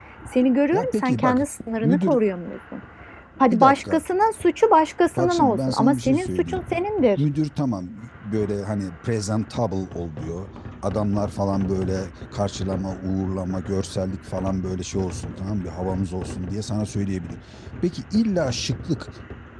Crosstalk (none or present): present